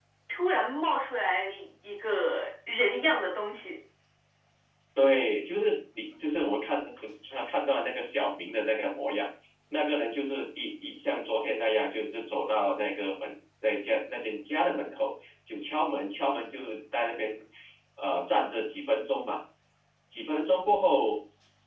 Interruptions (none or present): none